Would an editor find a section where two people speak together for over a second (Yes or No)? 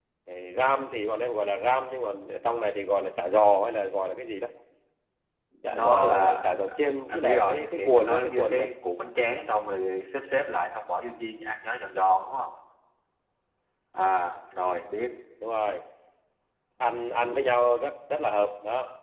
Yes